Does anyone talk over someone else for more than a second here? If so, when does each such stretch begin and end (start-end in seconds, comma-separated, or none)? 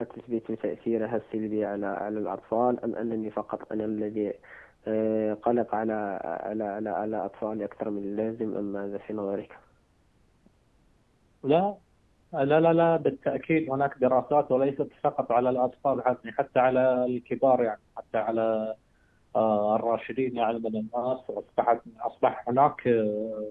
none